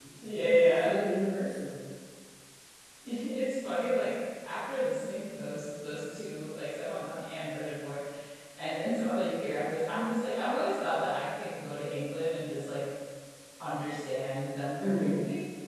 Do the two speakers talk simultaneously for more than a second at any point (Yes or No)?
No